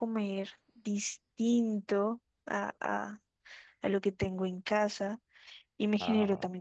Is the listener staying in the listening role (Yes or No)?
Yes